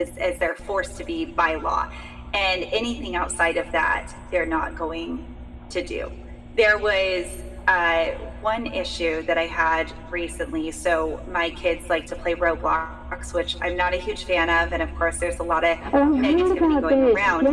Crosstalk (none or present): present